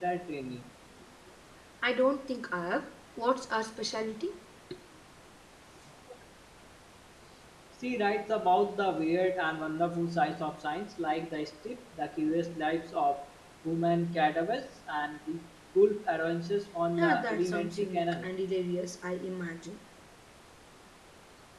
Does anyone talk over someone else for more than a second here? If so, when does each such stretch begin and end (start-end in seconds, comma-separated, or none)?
17.0-18.3